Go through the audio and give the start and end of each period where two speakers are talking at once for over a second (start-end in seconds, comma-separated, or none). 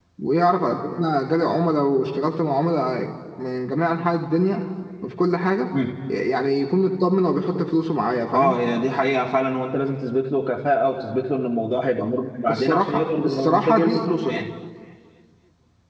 12.5-14.0